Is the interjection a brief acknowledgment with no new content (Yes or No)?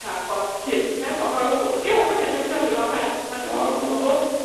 Yes